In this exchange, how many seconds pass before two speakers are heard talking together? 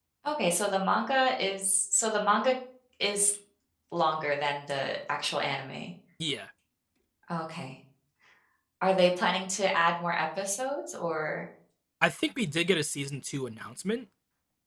none

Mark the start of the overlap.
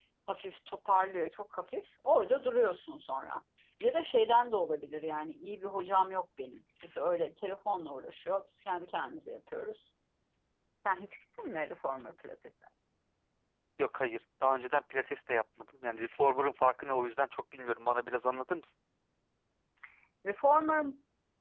none

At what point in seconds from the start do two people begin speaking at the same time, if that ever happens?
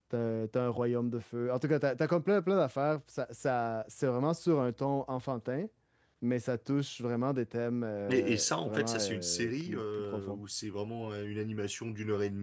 8.1 s

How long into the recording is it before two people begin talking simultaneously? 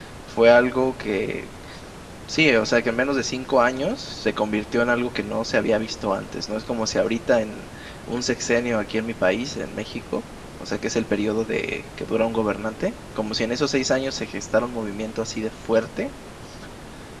none

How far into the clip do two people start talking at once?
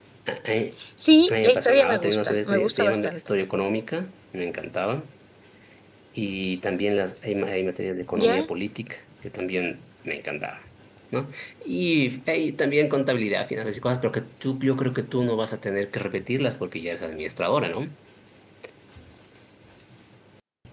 1.3 s

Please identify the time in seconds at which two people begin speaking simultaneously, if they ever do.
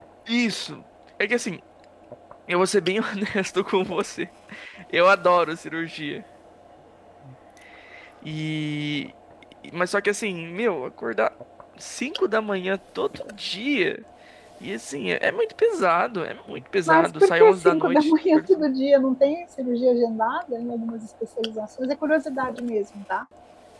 16.9 s

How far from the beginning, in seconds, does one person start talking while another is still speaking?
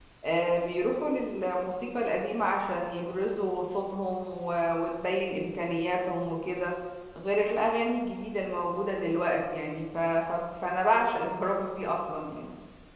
none

